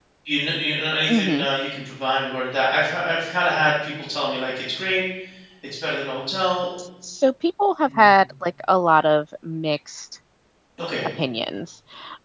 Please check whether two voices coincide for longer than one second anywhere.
No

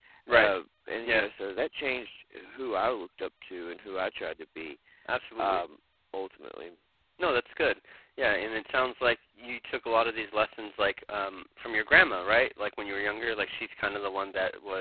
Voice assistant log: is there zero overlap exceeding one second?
Yes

